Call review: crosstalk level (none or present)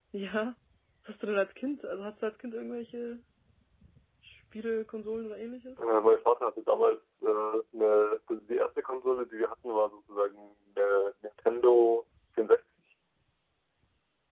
none